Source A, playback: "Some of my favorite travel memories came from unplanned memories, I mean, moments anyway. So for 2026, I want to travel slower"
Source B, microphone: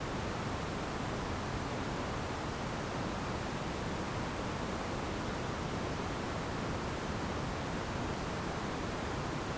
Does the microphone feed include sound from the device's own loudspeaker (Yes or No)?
No